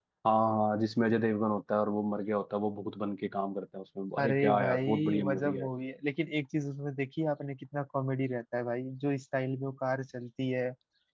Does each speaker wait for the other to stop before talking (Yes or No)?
No